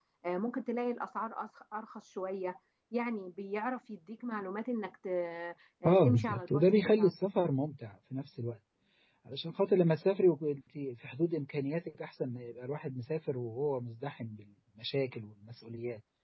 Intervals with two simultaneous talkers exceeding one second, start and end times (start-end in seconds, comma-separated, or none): 5.8-7.1